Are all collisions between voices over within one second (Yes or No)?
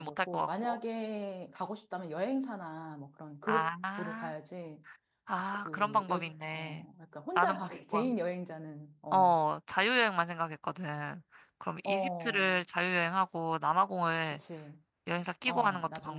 No